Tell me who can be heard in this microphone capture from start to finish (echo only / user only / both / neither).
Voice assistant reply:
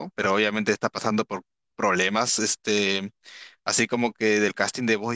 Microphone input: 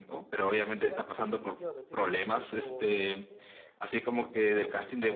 both